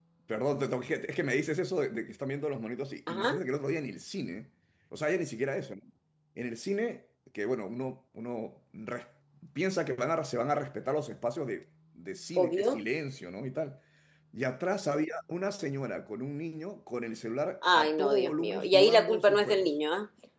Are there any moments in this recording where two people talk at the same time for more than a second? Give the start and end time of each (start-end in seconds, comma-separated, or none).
17.6-19.7